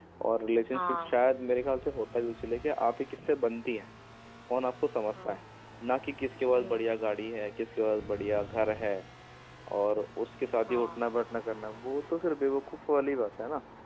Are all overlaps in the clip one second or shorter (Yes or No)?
Yes